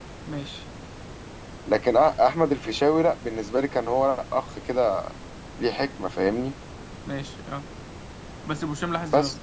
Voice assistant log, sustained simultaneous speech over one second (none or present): none